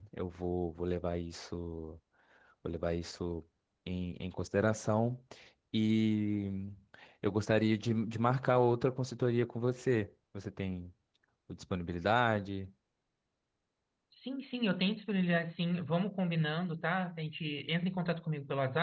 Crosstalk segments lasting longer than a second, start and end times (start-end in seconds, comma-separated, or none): none